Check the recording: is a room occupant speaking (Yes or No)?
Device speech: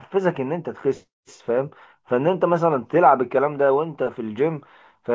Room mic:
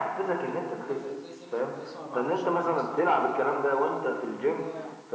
Yes